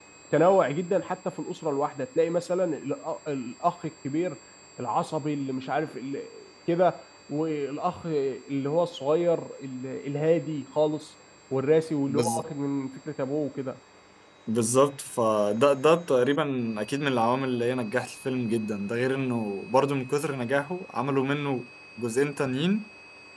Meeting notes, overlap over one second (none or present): none